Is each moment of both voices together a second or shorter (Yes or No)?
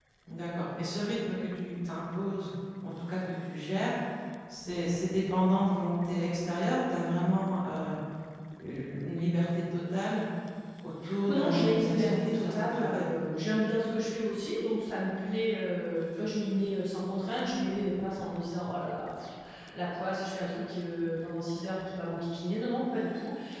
No